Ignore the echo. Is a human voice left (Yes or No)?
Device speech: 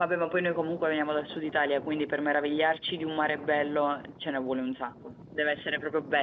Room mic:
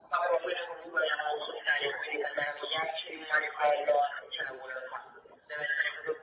No